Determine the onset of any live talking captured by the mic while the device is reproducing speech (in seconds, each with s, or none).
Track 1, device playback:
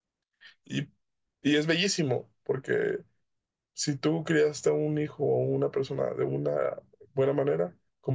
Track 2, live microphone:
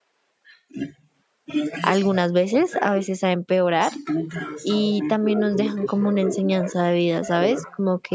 1.8 s